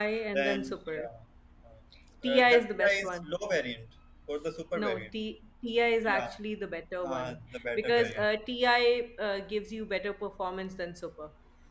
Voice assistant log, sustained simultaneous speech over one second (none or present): present